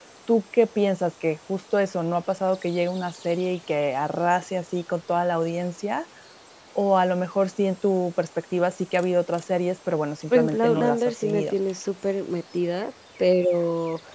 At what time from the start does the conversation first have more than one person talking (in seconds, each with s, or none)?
10.3 s